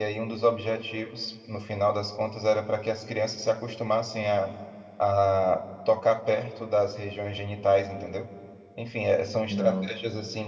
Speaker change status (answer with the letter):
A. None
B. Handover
A